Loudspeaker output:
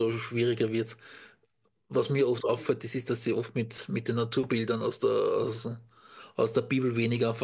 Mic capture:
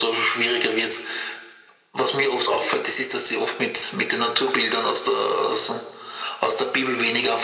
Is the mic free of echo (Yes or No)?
No